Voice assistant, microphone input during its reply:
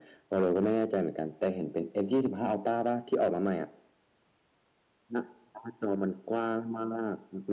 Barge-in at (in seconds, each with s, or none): none